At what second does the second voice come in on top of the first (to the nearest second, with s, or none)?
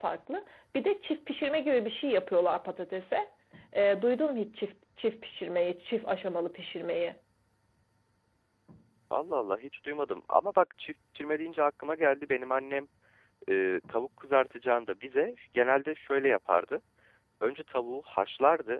none